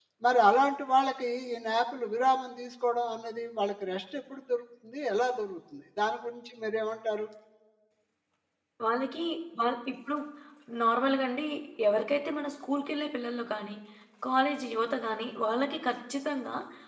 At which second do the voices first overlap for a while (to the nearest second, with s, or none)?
none